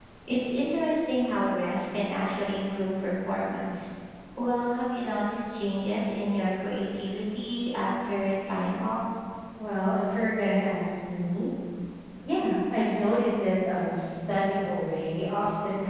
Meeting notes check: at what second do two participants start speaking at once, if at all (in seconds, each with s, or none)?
none